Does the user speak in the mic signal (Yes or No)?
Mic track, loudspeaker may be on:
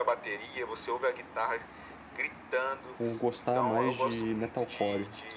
Yes